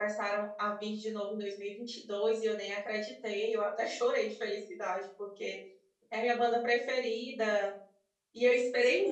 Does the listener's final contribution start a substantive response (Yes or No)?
Yes